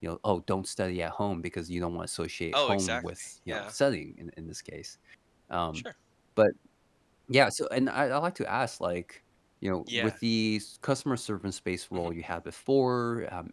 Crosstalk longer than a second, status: present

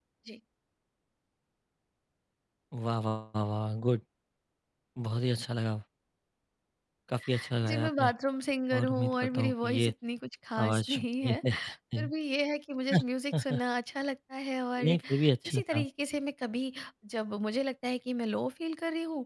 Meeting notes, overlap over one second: present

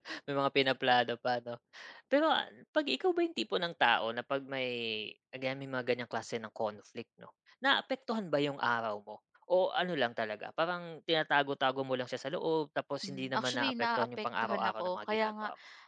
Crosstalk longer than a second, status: present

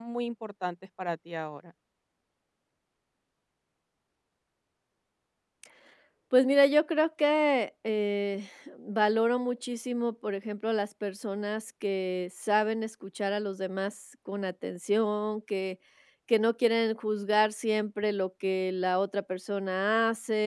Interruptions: none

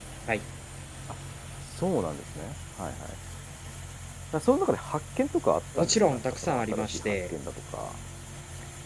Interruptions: present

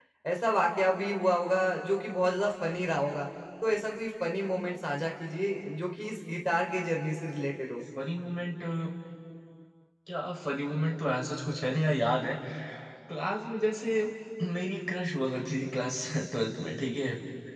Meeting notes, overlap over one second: none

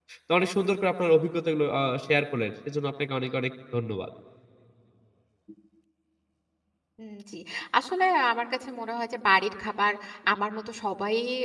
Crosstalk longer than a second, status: none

